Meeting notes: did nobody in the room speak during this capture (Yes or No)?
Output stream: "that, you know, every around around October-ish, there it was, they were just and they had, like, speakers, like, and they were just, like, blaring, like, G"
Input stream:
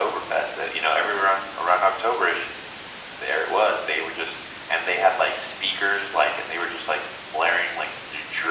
Yes